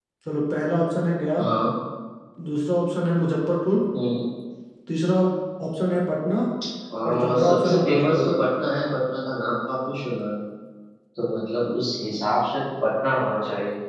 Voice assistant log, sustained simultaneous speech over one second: present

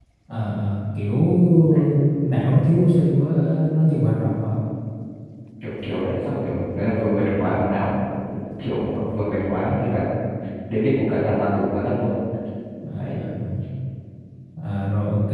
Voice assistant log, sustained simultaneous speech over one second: none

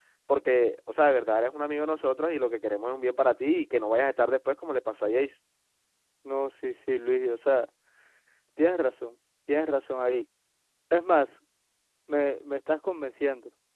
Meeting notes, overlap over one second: none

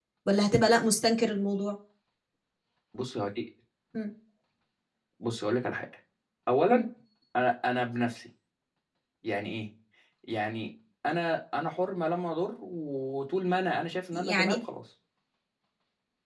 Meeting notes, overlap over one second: none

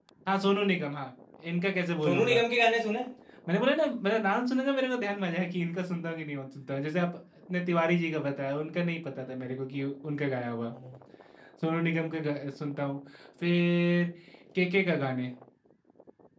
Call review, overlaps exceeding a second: none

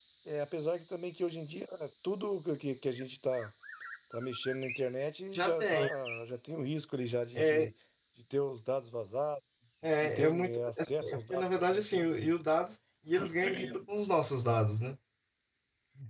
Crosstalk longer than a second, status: present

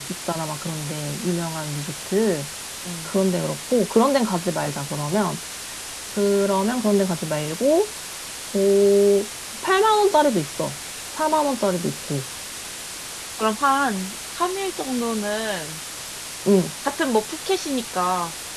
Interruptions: none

